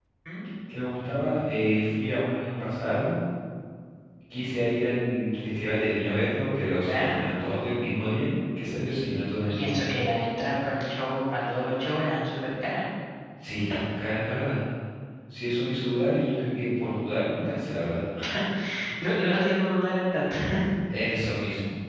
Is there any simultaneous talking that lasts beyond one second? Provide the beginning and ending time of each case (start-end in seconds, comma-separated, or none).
none